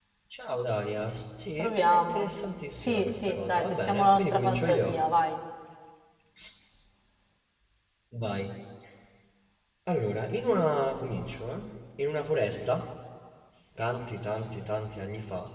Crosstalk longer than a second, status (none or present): present